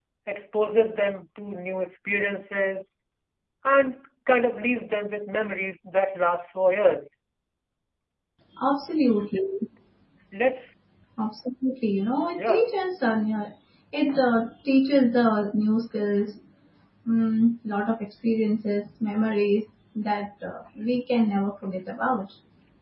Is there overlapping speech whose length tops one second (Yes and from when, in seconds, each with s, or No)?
No